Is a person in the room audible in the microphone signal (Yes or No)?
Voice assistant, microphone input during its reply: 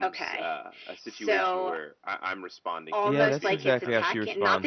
Yes